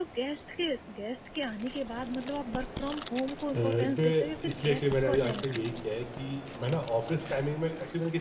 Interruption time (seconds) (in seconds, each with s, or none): 3.5 s